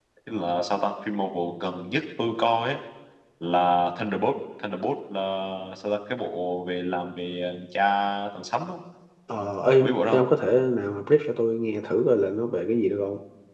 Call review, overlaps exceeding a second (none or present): none